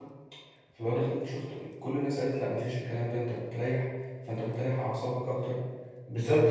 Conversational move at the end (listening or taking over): taking over